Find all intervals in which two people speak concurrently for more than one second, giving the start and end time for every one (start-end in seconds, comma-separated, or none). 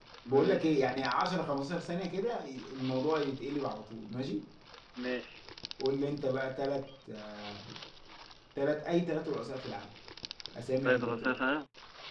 none